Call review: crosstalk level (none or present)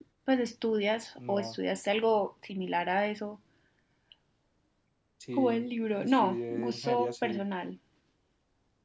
present